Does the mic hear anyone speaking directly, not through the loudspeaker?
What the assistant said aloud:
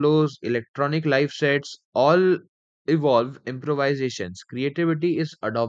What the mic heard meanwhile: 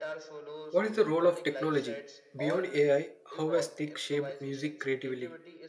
Yes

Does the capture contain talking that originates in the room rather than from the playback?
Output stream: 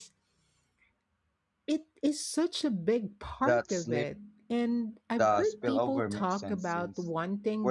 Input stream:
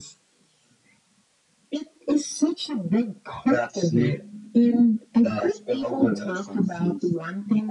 No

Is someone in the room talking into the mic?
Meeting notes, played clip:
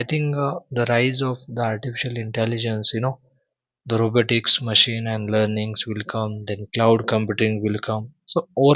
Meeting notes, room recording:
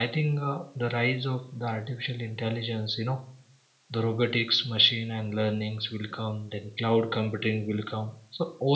No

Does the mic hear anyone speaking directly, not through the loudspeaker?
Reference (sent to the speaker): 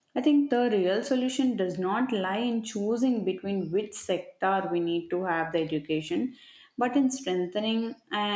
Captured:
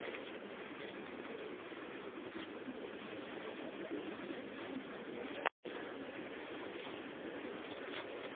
No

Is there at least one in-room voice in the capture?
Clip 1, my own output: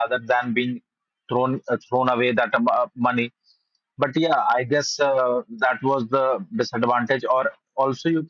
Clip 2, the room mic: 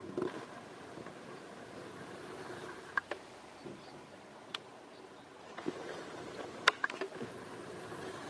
No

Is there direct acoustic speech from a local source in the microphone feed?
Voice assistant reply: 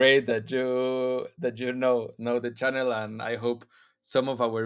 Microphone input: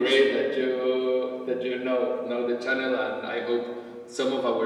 No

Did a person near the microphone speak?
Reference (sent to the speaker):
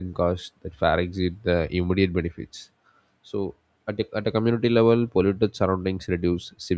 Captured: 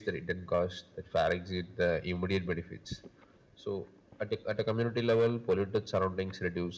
No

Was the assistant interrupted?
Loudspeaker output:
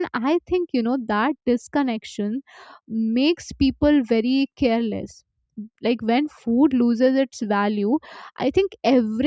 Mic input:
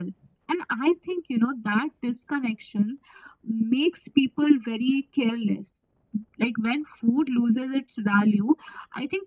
No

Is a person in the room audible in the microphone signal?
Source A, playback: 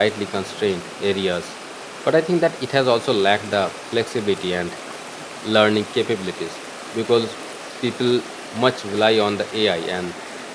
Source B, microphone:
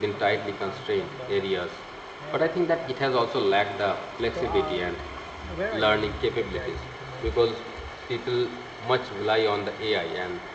Yes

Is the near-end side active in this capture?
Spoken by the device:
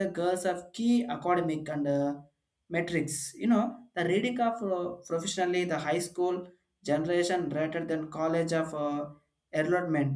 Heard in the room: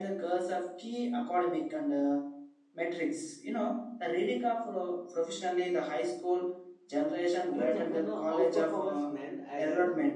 Yes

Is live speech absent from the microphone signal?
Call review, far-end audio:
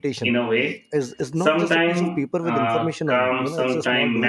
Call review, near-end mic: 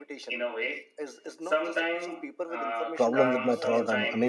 No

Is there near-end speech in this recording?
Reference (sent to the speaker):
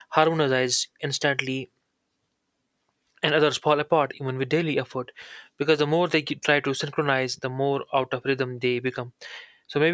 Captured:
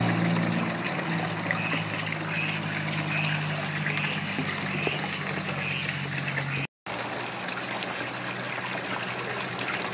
No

